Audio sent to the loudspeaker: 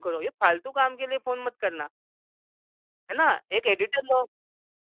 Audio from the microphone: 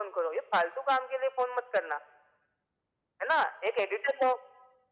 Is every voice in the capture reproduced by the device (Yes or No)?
Yes